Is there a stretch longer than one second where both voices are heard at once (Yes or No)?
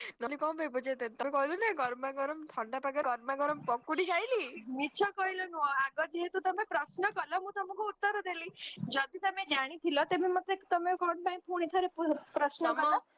No